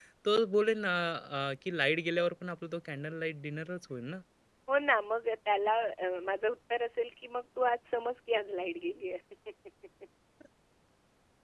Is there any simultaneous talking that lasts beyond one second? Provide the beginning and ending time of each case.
none

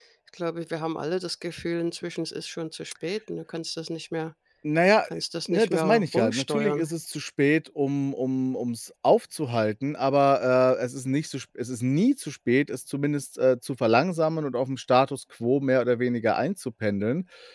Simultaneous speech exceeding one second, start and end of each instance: 5.5-6.9

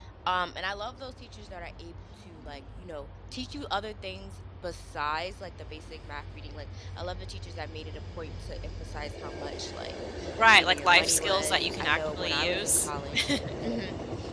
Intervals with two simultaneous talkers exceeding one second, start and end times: 10.4-12.9

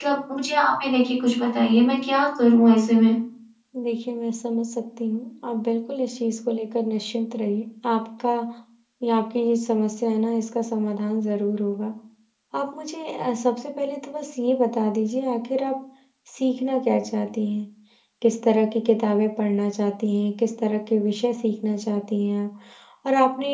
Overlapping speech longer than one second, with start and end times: none

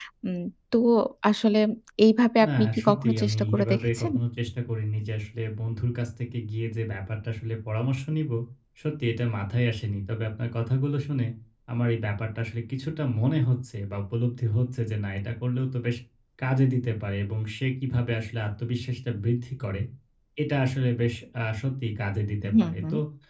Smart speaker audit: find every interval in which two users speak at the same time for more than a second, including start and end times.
2.5-4.1

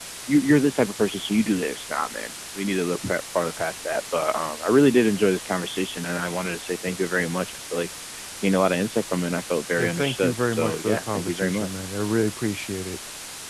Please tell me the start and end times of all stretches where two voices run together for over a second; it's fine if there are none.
9.8-11.7

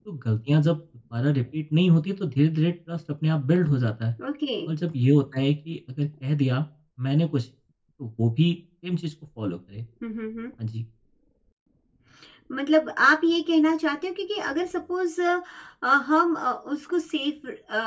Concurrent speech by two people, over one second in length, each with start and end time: none

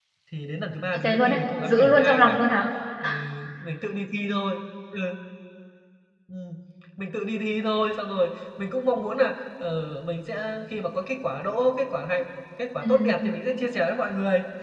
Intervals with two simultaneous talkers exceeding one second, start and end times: 0.9-2.4

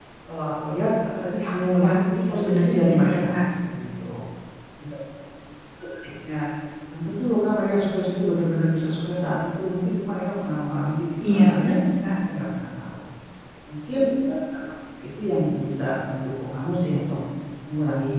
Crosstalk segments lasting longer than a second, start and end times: 1.8-3.4

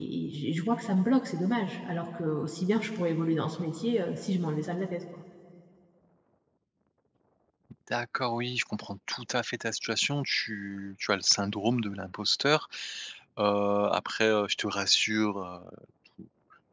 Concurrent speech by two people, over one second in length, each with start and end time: none

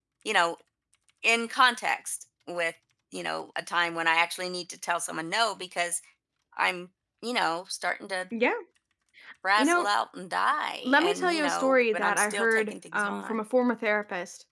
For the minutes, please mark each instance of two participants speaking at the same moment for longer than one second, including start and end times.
10.8-13.4

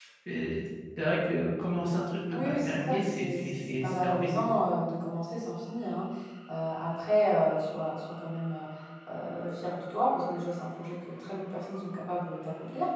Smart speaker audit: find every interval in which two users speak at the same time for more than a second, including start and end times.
2.3-4.7

